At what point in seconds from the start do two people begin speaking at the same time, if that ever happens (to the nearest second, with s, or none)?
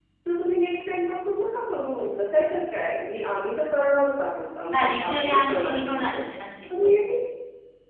5 s